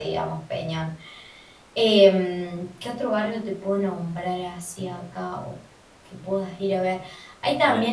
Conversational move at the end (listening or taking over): taking over